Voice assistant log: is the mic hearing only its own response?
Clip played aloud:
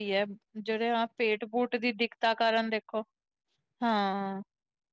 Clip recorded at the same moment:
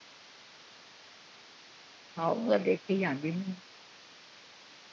No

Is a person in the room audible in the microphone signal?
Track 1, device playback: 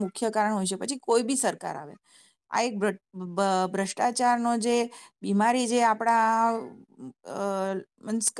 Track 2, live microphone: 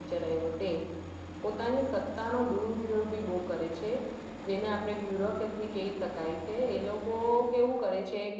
Yes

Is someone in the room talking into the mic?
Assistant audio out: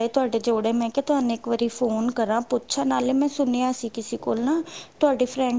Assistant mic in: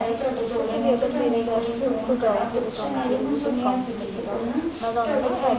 Yes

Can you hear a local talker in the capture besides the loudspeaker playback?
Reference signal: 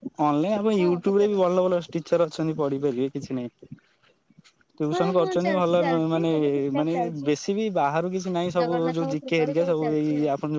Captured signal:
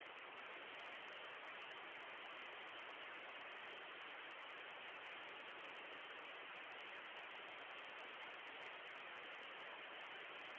No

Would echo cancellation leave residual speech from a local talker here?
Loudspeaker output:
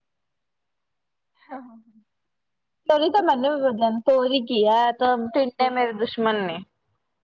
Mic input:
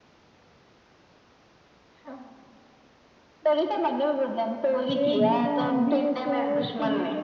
Yes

